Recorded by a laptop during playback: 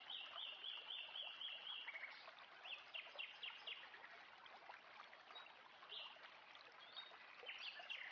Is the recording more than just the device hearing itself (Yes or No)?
No